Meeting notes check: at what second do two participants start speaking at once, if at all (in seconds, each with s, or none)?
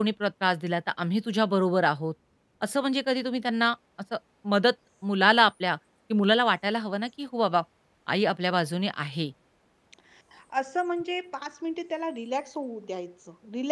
none